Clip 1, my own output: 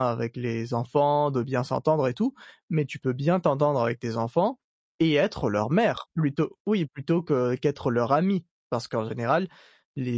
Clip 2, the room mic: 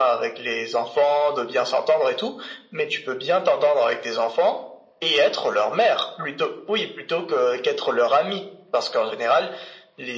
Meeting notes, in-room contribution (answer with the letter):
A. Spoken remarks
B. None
B